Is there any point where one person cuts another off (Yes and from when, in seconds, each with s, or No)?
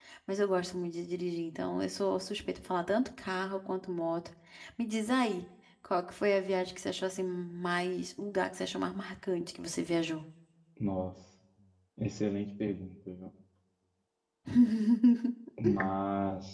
No